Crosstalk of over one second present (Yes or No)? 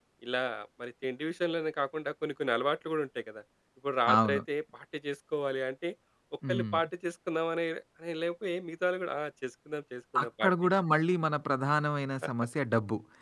No